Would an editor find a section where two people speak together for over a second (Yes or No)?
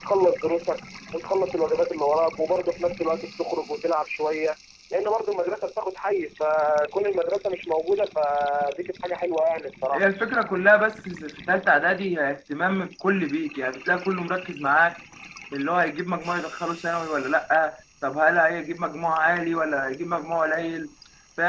No